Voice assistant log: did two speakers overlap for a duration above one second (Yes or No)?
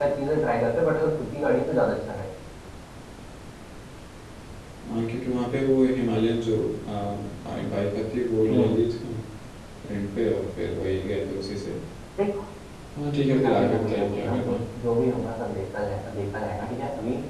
Yes